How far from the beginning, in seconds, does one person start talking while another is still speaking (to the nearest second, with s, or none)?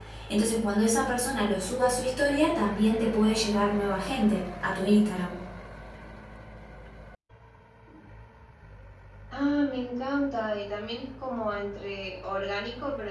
none